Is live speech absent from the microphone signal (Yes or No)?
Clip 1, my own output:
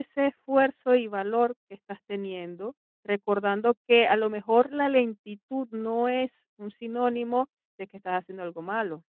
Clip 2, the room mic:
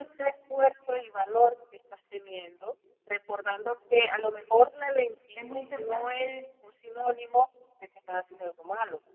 No